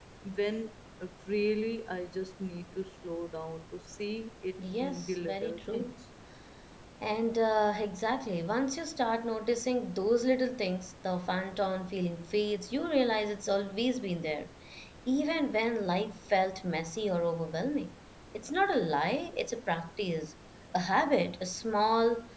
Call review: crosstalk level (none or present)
present